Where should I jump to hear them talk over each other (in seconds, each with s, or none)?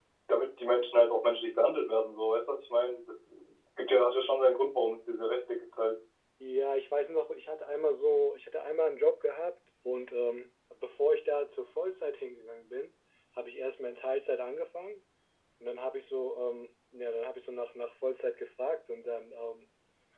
none